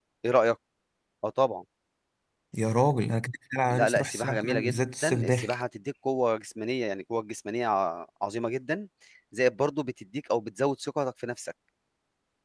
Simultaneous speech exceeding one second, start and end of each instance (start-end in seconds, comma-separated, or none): 3.7-5.5